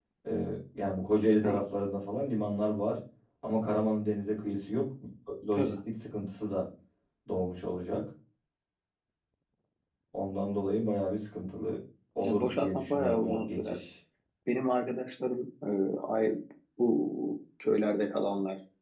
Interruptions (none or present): present